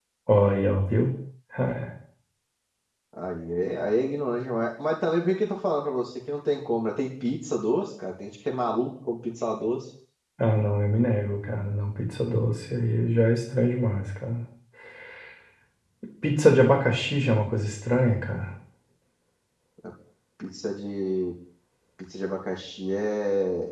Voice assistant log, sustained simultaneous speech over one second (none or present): none